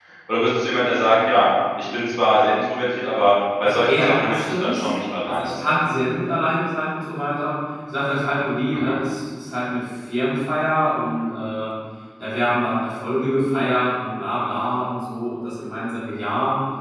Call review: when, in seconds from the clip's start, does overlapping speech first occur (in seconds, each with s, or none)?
3.6 s